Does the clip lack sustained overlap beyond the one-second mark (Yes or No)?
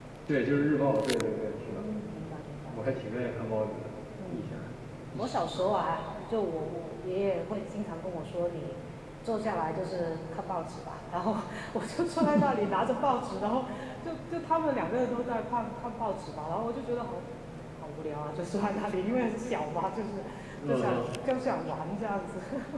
Yes